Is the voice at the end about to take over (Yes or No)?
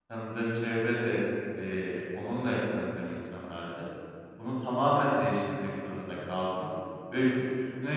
No